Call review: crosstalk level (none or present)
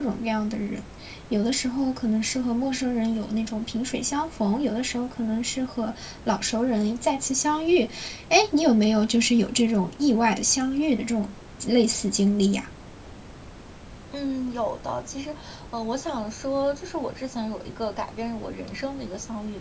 none